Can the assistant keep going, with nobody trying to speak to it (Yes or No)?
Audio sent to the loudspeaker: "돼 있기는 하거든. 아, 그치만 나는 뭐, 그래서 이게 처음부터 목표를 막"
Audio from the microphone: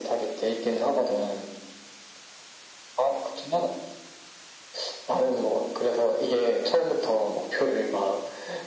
Yes